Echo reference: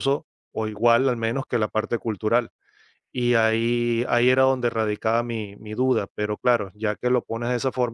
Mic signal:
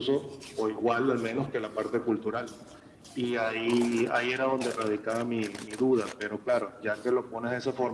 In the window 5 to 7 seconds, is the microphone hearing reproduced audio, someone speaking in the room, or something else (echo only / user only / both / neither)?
echo only